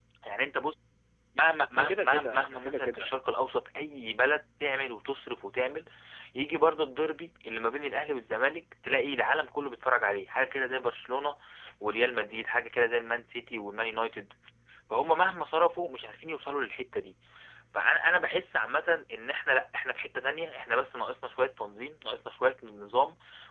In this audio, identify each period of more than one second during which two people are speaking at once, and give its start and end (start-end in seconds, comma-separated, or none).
1.8-3.1